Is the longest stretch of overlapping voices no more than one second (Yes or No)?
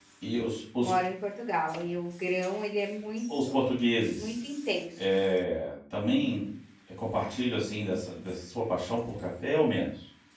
Yes